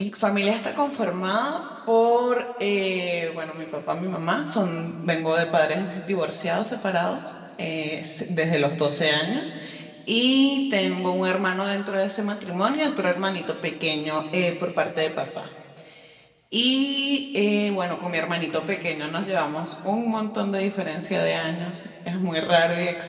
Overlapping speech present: No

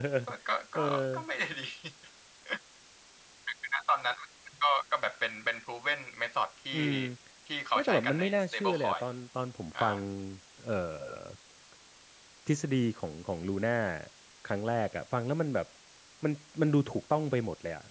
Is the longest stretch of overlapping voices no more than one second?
No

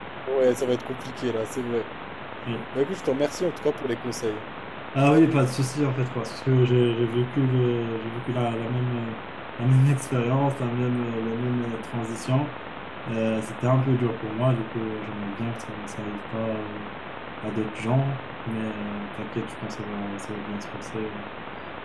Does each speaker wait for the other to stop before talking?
Yes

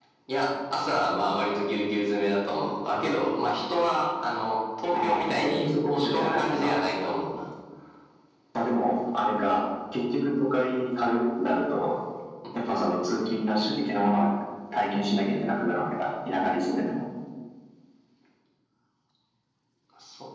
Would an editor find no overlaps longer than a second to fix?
No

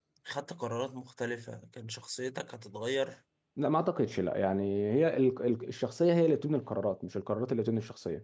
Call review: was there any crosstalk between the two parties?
No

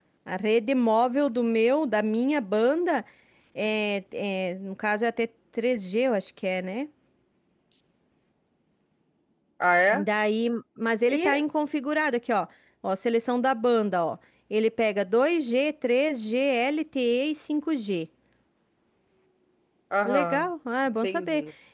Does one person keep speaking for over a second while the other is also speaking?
No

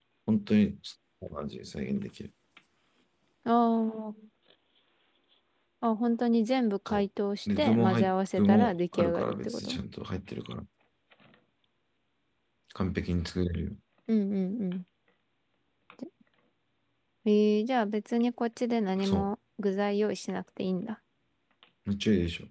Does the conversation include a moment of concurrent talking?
Yes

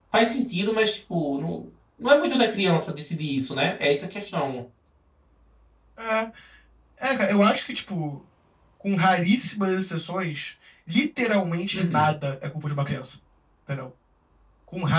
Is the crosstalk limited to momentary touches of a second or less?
Yes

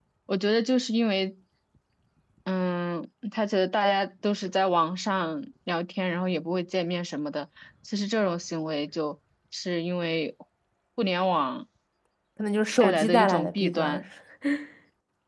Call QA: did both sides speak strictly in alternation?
No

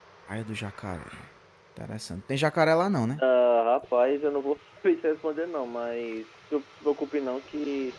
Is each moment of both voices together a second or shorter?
Yes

